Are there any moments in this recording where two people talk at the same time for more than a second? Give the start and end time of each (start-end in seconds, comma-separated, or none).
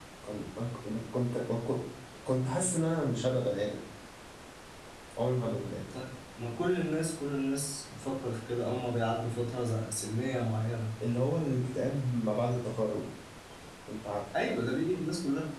none